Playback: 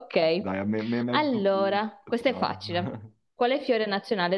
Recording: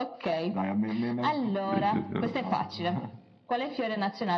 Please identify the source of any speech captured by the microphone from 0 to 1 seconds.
echo only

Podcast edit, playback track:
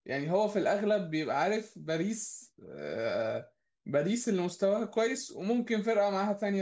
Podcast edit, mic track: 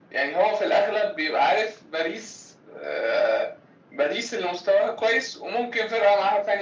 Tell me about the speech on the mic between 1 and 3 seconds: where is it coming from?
echo only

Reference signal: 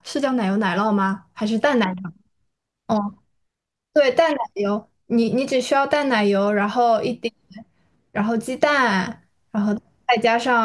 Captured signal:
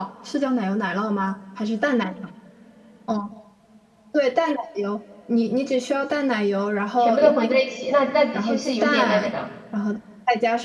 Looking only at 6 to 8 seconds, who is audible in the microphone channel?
both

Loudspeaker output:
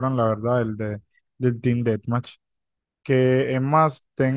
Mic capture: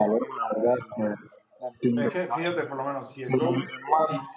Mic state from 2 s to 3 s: both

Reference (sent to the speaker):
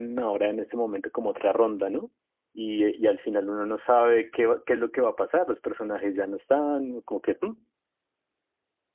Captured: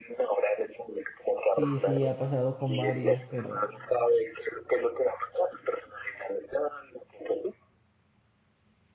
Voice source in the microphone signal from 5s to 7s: echo only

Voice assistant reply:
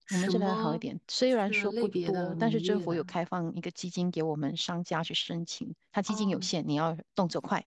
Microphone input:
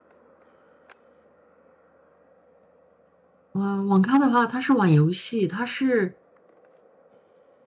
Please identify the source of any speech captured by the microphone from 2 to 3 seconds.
neither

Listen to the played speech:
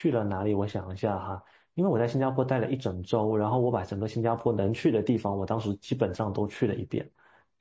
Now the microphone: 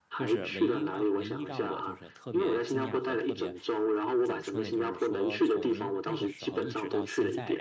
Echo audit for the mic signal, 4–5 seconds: both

